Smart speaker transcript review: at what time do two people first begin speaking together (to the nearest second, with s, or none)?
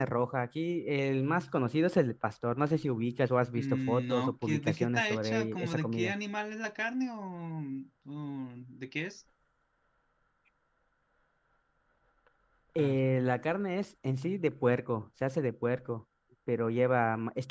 4 s